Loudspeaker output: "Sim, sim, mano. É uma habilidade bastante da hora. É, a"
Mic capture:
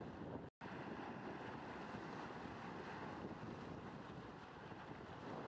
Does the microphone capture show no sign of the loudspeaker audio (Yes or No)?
Yes